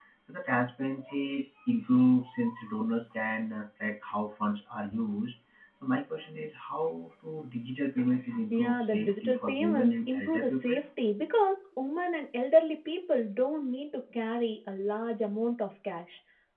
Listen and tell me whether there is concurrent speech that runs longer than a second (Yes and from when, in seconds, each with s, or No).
Yes, from 8.5 s